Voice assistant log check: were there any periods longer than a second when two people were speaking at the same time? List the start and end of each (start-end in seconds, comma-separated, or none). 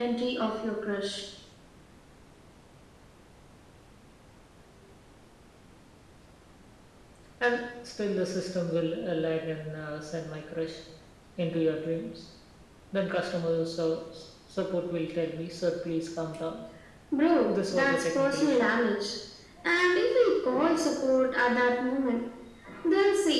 17.5-18.7